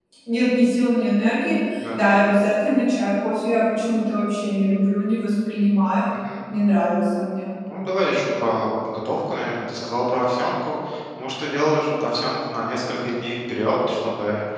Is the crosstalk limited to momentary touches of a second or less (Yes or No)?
Yes